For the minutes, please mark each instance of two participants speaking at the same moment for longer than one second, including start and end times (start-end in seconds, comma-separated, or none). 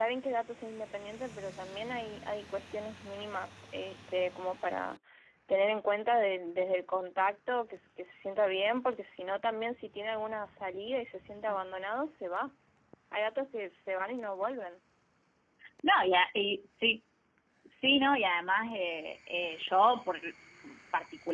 none